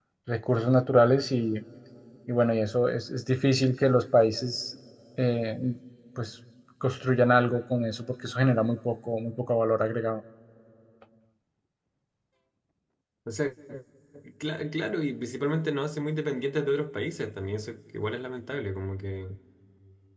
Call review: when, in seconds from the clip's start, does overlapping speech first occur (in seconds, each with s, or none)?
none